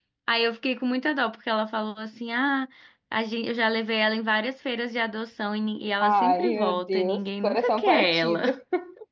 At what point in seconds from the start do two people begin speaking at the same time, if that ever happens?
6.0 s

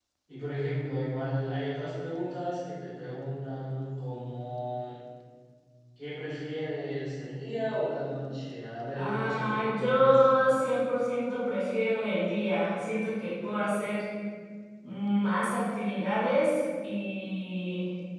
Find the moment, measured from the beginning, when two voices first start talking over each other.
8.9 s

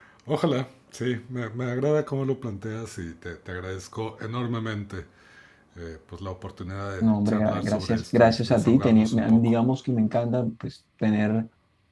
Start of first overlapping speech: 7.0 s

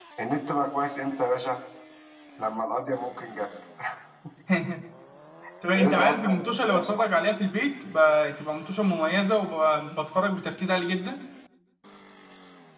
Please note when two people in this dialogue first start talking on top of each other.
5.8 s

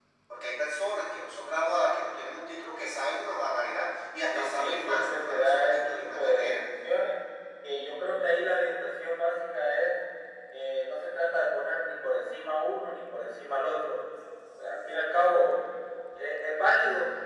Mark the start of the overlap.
4.3 s

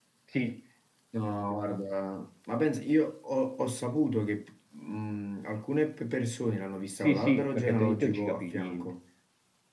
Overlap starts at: 7.0 s

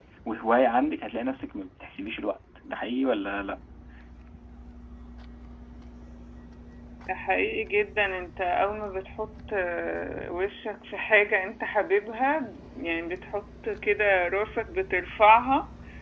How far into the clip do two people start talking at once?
none

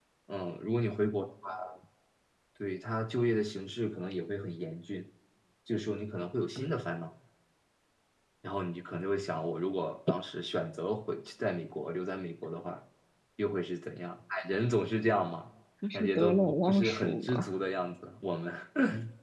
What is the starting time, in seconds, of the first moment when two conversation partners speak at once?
15.9 s

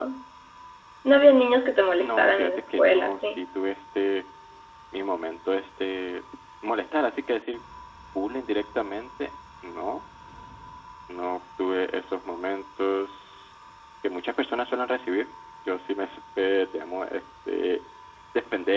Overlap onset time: 2.0 s

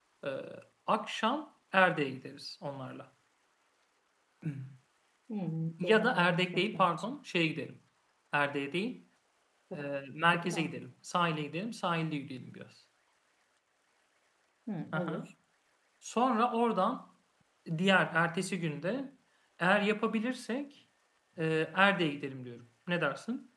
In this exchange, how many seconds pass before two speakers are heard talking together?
5.8 s

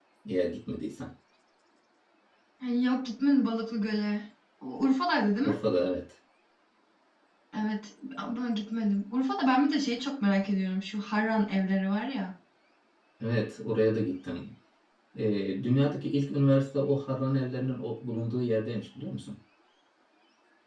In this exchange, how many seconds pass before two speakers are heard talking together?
none

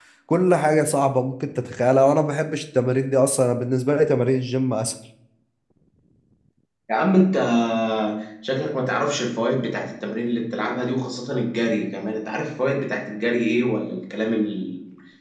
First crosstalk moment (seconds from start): none

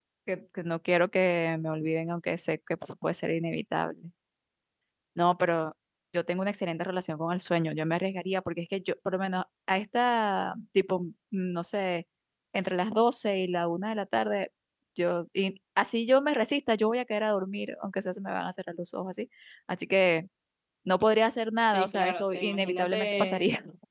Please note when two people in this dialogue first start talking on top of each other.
21.7 s

